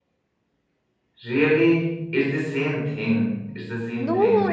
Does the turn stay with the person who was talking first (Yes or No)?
No